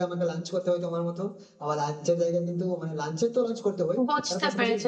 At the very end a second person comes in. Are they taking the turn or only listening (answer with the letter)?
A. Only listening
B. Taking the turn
B